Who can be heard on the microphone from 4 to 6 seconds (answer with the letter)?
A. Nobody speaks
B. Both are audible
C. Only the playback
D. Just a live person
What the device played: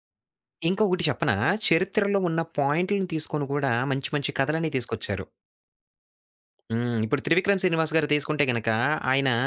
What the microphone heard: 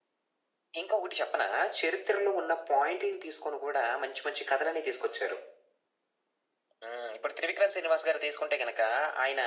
C